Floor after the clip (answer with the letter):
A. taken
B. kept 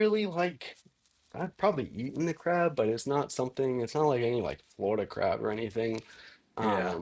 B